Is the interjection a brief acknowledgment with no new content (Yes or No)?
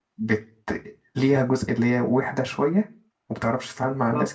No